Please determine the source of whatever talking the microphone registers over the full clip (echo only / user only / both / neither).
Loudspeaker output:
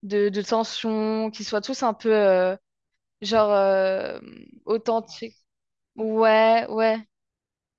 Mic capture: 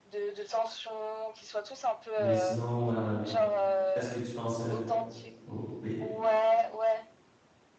both